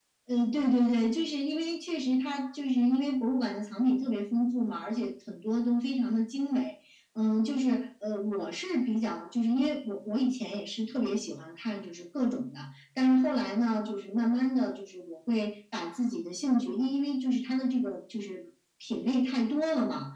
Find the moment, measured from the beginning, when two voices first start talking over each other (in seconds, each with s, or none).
none